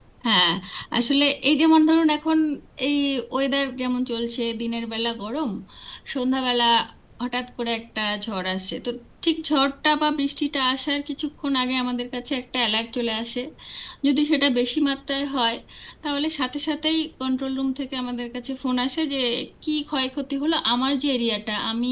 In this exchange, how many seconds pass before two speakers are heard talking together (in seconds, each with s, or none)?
none